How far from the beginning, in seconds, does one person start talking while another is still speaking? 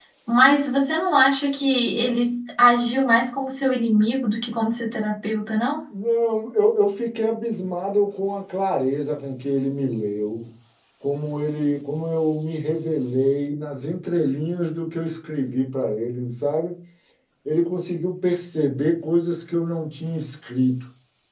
none

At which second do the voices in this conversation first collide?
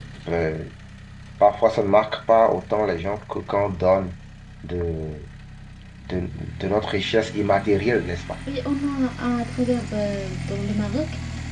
none

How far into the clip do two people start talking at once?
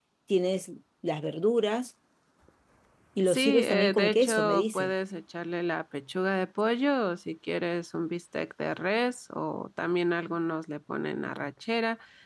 3.3 s

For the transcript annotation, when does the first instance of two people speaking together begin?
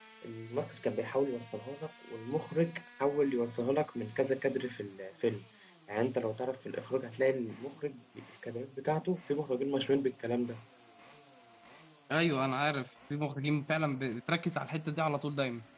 none

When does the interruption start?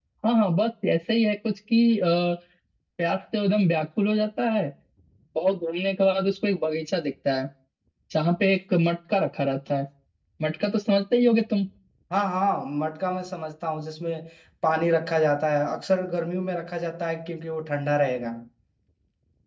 none

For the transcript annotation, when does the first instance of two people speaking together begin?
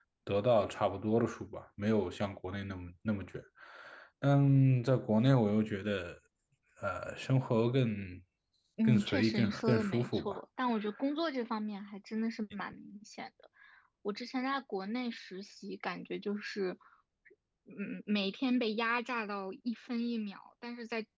8.8 s

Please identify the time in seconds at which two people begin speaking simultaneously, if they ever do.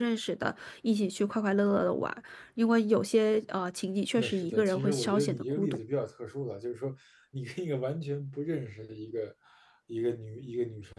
4.2 s

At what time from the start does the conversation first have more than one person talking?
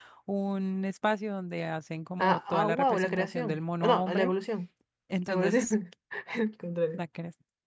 2.2 s

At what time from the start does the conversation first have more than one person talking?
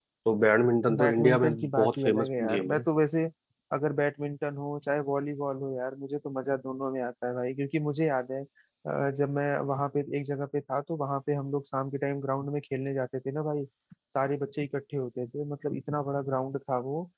1.0 s

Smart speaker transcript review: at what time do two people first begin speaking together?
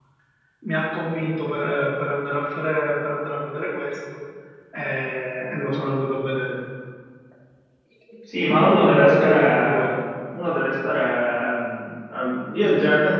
8.5 s

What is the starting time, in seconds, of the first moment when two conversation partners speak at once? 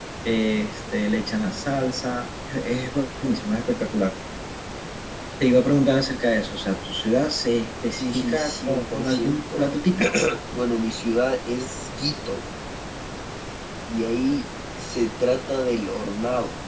8.0 s

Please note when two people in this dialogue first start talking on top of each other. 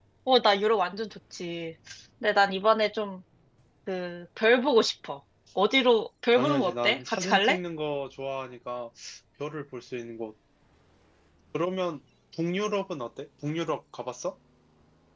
6.3 s

